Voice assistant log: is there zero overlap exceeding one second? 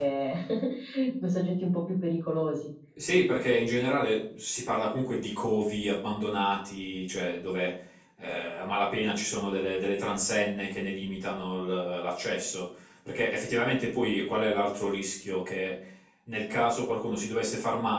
Yes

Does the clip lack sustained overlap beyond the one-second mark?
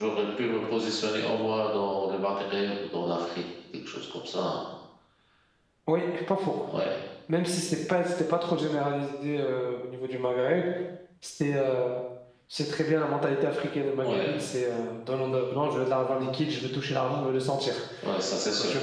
Yes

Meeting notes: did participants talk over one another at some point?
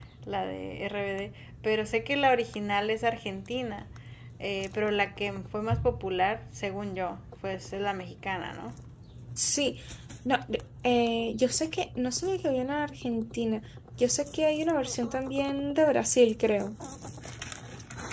No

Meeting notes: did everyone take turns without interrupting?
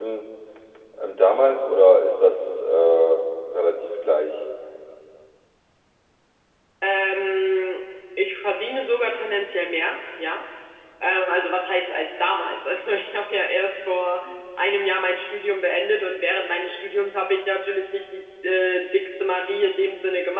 Yes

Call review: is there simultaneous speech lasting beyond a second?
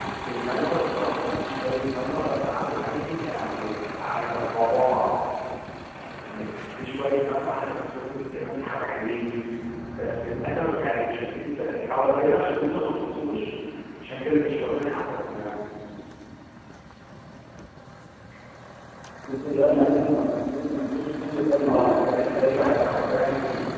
Yes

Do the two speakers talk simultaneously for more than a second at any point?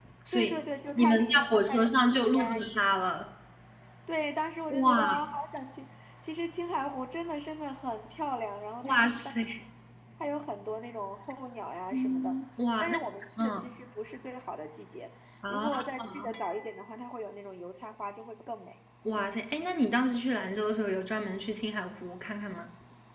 Yes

